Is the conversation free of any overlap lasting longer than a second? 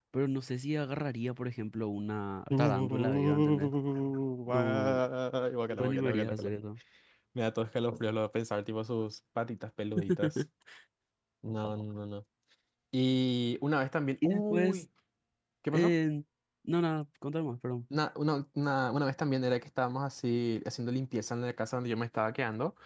No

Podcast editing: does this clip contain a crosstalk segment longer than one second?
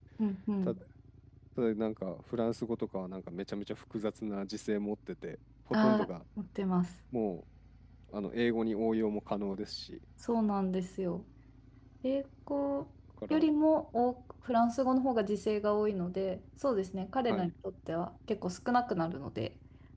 No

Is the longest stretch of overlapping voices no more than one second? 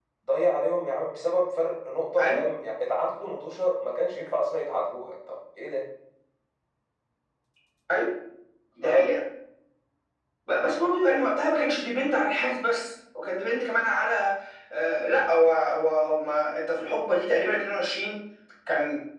Yes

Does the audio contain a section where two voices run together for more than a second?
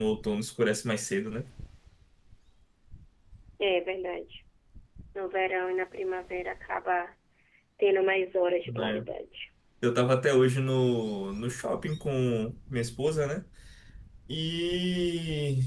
No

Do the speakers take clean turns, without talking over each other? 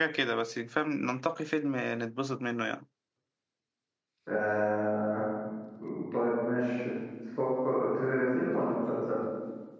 Yes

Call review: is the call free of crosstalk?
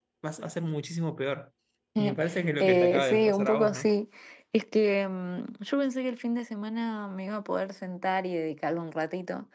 No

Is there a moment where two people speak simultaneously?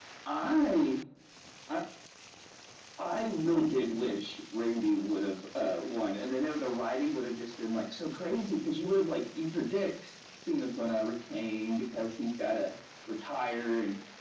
No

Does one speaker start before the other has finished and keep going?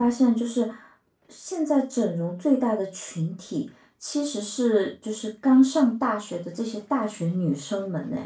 No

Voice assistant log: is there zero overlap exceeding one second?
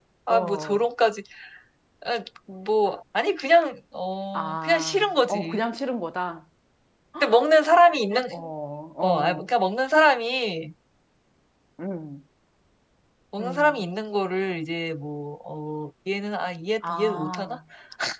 No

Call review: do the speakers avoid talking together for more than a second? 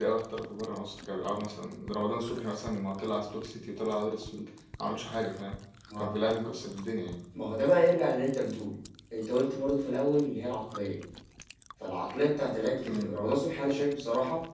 Yes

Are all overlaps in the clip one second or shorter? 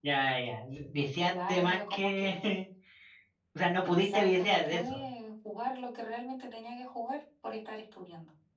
No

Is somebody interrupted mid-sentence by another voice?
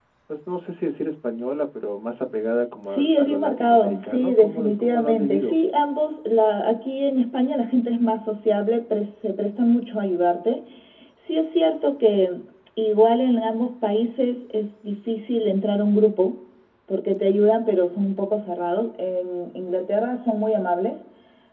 Yes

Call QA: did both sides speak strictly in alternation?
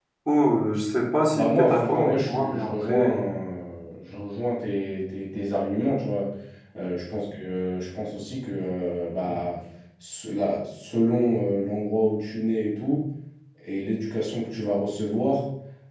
No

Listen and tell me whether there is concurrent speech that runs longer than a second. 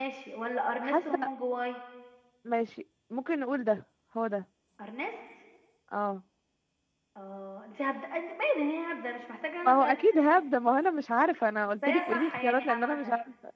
Yes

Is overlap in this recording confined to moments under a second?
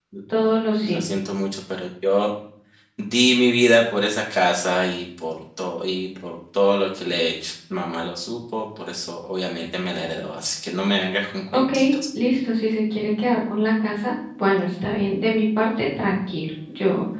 Yes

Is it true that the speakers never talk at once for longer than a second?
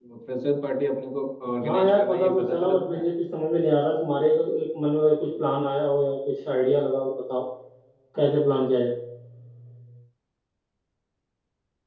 No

